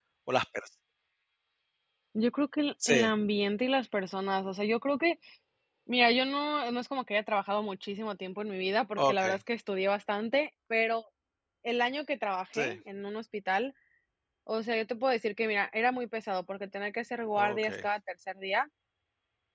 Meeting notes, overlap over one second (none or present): none